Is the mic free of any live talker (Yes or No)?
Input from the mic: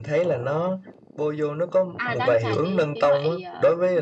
No